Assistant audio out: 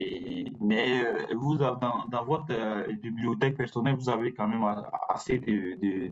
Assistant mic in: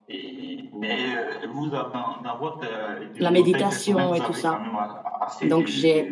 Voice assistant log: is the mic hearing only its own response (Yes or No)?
No